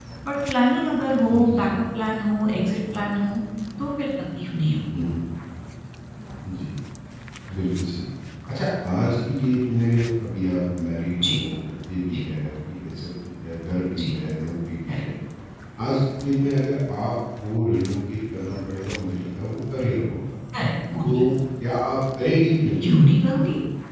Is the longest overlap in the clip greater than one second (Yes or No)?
No